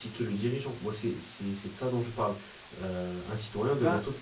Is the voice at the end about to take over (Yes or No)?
No